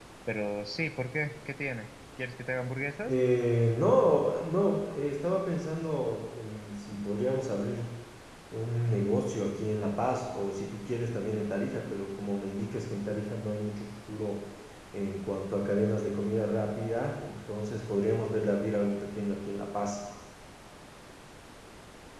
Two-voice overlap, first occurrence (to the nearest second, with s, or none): none